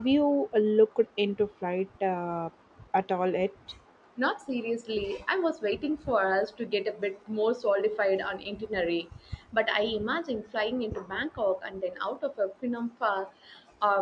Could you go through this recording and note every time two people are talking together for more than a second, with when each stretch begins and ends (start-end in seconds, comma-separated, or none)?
none